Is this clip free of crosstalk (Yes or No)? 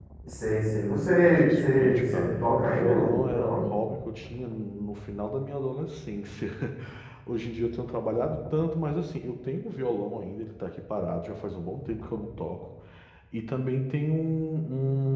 No